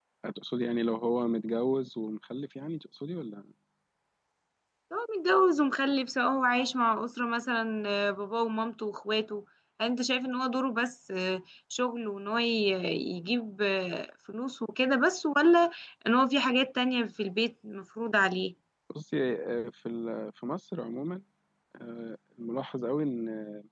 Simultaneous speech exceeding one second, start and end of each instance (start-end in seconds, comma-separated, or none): none